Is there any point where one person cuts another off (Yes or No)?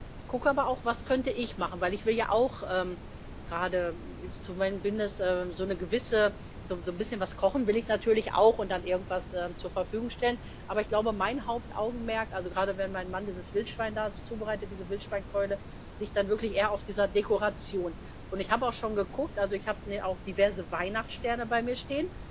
No